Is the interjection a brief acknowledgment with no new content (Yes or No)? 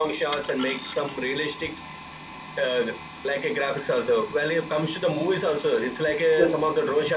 Yes